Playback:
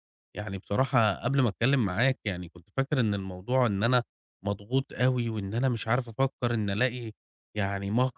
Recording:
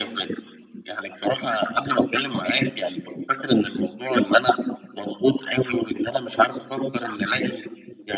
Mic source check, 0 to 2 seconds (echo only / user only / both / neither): echo only